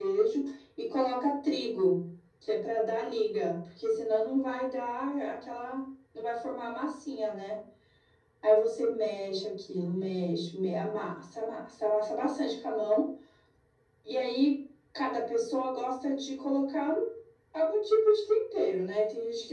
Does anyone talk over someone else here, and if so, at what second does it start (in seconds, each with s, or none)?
none